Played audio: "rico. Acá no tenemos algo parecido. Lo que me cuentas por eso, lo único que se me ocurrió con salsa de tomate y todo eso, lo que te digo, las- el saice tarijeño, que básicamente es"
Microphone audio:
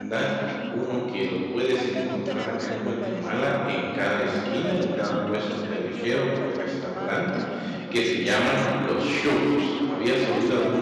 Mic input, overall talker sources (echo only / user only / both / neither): both